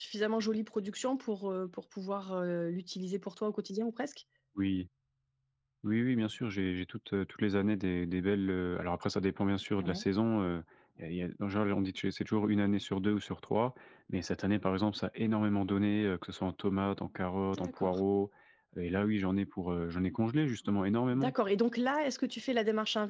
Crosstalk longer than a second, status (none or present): none